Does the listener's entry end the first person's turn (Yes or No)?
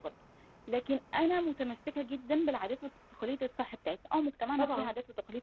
No